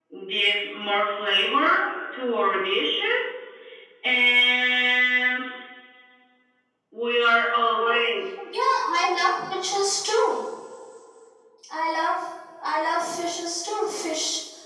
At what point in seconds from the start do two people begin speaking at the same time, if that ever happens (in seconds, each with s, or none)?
none